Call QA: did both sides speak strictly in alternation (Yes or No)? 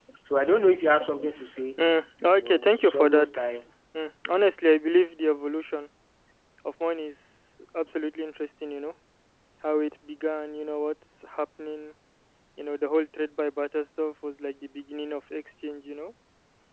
No